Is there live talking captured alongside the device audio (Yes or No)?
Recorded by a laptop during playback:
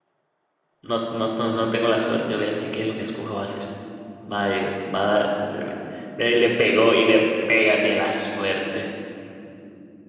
Yes